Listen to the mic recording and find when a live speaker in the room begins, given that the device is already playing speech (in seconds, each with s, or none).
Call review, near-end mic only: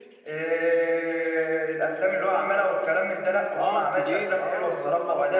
3.6 s